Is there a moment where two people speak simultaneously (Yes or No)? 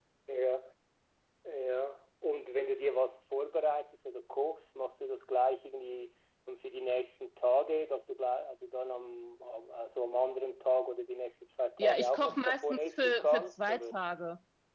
Yes